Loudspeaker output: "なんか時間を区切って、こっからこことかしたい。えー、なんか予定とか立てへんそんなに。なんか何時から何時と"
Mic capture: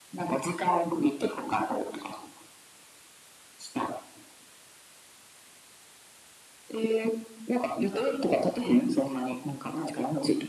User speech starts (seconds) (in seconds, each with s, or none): none